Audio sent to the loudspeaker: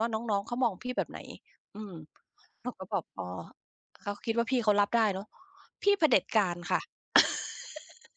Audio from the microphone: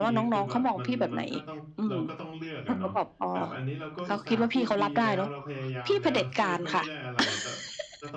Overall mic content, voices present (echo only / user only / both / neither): both